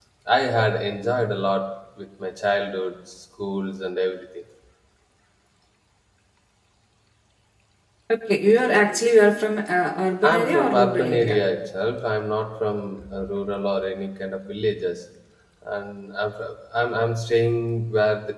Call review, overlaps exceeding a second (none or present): present